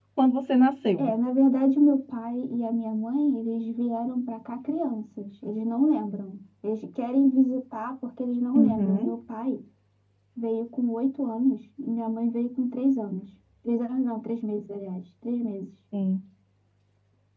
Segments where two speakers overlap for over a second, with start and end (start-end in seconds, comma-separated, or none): none